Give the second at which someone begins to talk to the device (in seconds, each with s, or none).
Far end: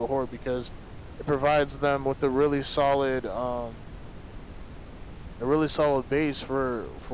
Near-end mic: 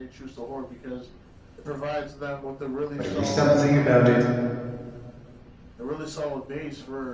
3.0 s